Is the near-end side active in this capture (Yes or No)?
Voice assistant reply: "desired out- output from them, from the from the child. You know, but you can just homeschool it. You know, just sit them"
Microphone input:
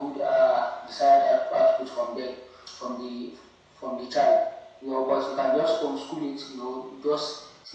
No